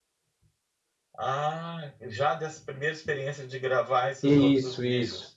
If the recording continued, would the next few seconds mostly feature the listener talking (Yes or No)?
Yes